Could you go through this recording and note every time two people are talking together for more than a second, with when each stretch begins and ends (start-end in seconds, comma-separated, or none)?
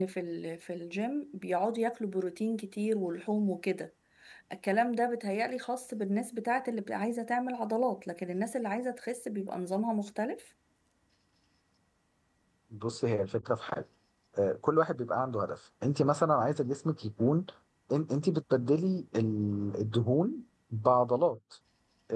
none